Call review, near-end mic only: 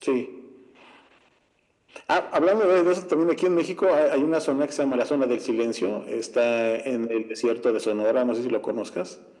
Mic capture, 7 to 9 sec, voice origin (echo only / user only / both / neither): echo only